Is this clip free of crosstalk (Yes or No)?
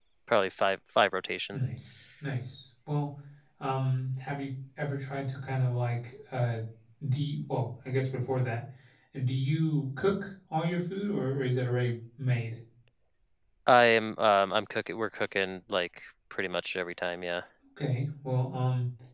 Yes